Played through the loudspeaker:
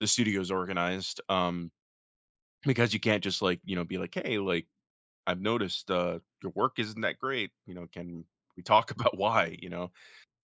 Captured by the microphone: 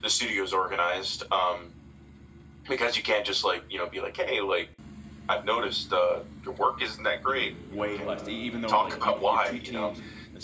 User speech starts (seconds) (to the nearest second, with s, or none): 7 s